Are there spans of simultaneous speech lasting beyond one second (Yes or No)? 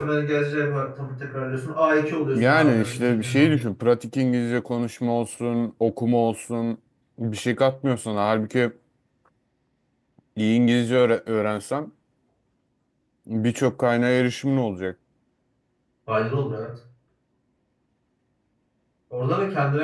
Yes